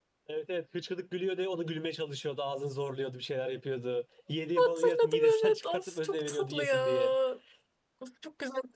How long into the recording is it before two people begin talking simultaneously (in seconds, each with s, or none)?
4.6 s